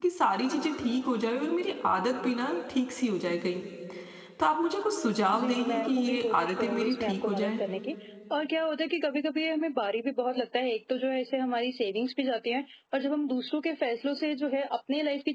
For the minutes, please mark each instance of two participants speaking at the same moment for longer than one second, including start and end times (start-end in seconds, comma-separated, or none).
5.4-7.6